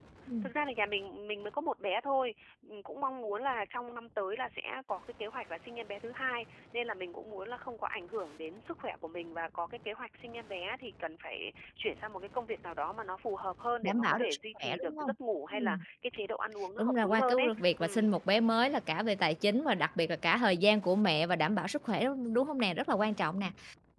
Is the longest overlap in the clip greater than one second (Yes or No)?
Yes